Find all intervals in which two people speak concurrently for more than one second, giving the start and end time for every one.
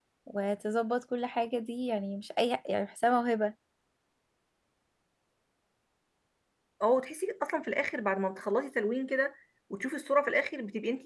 none

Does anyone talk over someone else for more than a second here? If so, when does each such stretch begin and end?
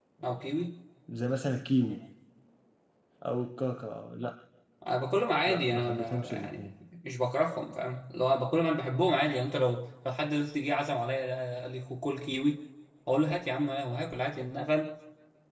5.5-6.7

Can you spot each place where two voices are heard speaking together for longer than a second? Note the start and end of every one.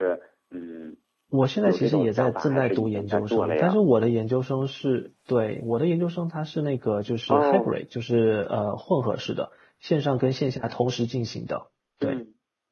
1.6-3.8

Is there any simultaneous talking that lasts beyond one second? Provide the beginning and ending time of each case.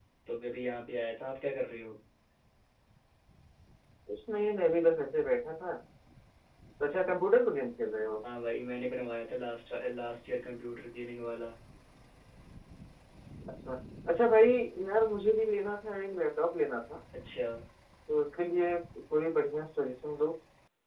none

